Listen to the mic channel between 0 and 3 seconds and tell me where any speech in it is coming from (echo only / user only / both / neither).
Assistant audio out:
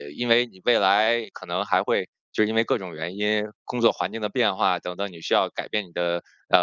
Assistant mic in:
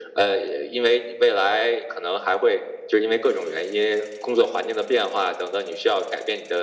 echo only